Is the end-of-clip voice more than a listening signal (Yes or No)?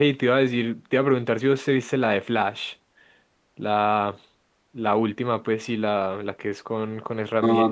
Yes